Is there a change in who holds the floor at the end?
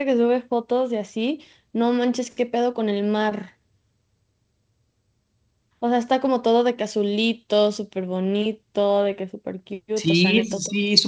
Yes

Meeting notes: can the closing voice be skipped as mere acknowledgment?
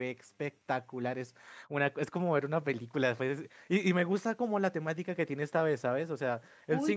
No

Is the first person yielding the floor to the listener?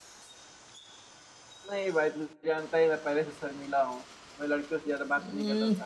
Yes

